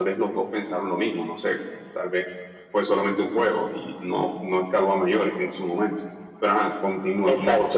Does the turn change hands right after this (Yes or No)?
Yes